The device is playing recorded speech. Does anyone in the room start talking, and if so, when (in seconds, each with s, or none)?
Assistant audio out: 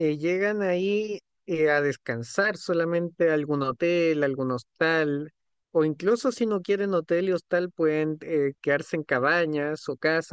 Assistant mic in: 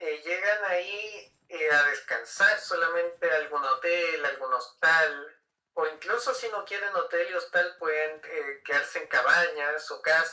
none